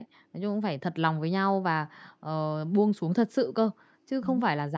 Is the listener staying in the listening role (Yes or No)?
Yes